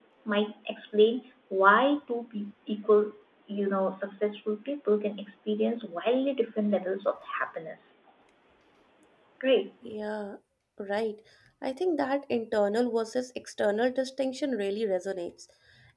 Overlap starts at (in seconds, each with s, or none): none